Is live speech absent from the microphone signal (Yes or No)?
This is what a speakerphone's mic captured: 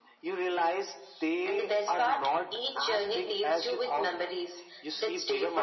Yes